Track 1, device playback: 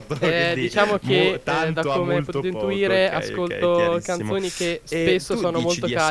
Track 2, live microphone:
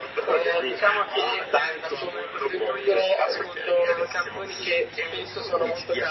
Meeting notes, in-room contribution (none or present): none